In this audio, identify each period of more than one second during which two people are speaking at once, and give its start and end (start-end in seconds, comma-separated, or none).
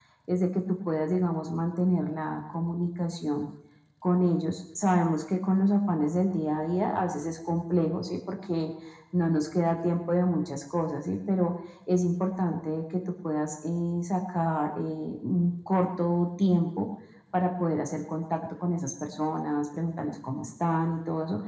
none